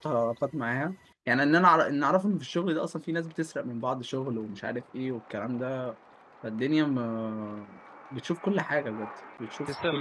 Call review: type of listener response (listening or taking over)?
taking over